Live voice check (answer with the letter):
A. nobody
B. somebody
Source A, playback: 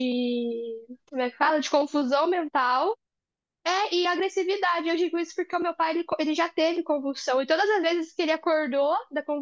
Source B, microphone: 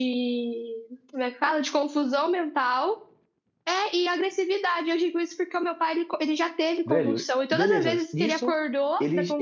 B